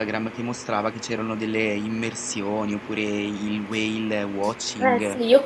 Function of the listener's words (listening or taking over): taking over